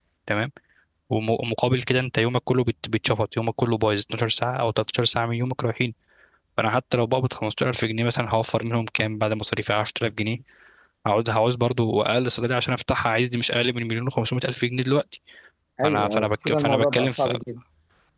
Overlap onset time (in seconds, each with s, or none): 15.8 s